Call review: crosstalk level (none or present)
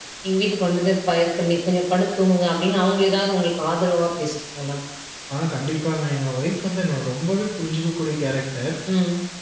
none